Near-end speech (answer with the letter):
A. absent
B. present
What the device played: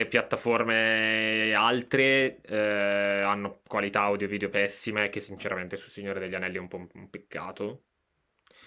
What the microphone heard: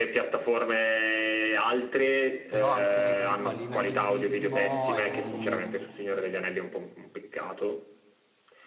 B